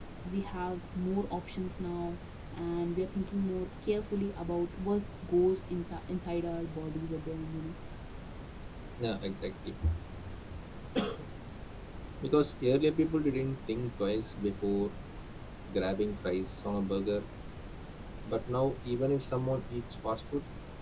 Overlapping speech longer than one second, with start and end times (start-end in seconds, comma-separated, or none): none